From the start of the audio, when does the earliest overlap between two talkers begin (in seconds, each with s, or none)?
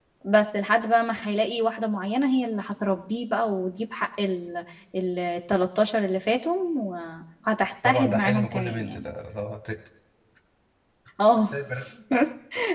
7.8 s